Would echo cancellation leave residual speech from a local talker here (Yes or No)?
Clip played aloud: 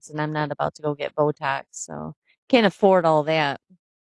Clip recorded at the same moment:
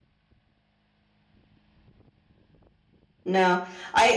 Yes